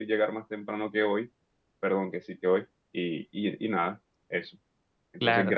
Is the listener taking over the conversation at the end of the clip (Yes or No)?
Yes